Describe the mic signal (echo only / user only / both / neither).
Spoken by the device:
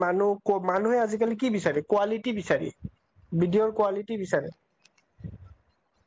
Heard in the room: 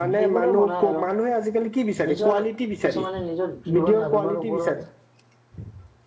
both